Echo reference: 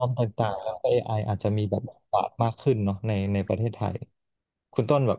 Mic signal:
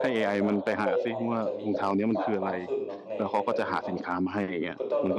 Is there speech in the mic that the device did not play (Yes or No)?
Yes